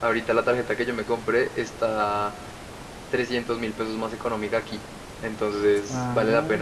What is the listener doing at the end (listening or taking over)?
taking over